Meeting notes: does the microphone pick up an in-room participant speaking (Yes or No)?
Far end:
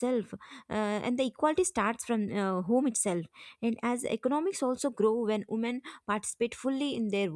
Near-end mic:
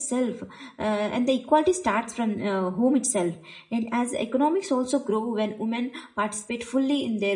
No